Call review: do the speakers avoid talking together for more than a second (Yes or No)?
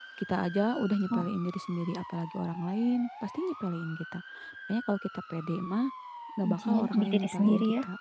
No